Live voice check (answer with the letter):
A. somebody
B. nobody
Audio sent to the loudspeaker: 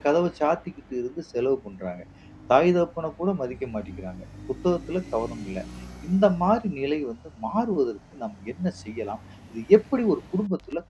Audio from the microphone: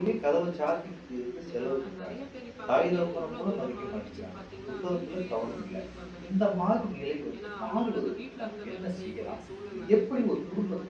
A